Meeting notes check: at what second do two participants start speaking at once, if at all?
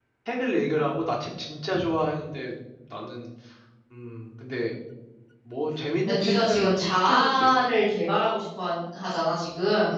6.1 s

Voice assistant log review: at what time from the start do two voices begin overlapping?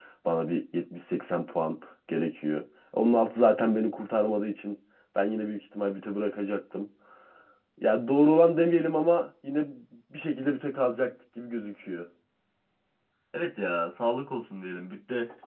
none

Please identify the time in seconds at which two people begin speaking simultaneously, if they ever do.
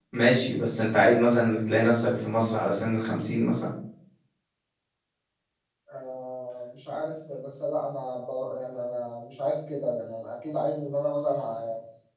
none

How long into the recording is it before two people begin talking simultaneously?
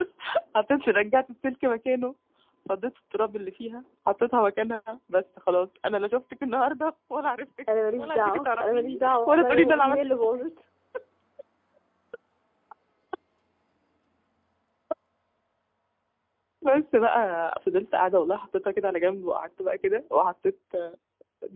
7.7 s

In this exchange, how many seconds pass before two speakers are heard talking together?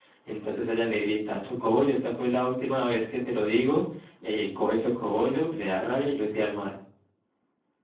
none

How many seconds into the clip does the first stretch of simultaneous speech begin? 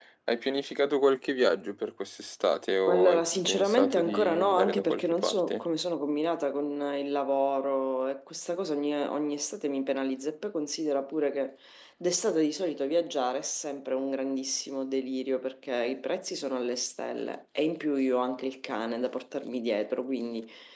2.9 s

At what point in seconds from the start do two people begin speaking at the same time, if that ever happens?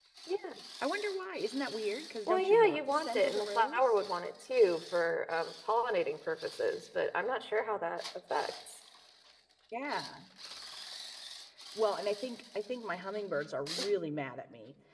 2.3 s

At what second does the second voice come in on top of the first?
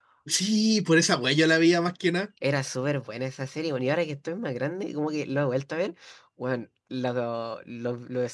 none

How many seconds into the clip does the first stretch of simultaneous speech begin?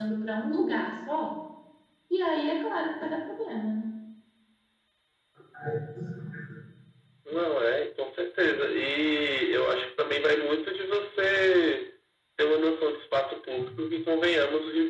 none

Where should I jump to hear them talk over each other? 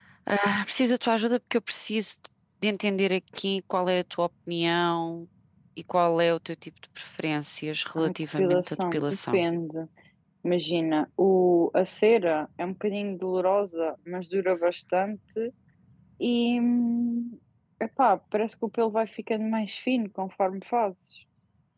8.0 s

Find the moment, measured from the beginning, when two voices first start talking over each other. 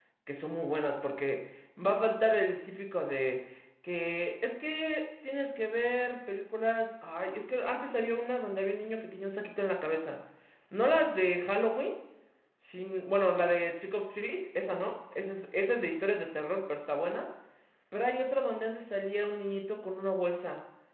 none

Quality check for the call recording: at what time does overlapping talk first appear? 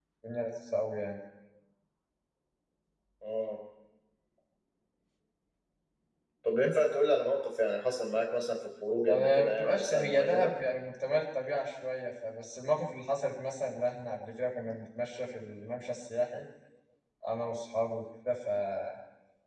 9.1 s

